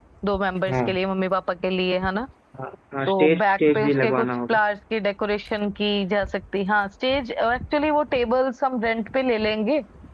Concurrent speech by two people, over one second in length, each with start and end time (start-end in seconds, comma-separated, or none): 3.1-4.6